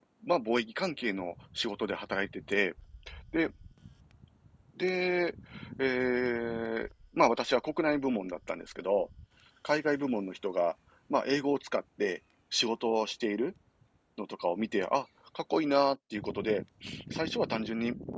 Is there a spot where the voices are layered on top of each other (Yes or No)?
No